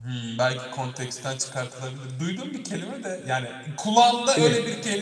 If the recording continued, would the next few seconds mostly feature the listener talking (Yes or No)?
No